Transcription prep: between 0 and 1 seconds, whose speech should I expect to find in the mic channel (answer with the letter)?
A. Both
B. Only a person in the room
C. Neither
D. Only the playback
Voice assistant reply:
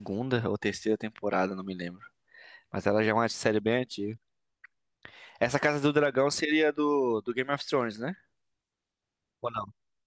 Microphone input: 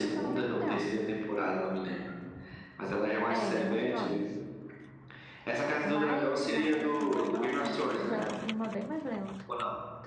A